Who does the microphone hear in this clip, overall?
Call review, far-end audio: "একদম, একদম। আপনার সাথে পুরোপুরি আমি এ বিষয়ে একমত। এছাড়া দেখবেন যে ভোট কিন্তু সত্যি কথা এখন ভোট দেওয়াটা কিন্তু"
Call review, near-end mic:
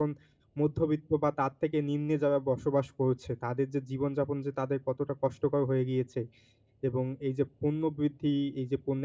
user only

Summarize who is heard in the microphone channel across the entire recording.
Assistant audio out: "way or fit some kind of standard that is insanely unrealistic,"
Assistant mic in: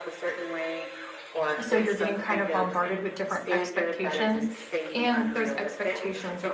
both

